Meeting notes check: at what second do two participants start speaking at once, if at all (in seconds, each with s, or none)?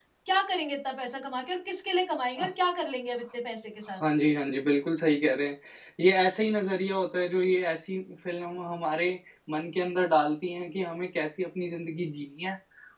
none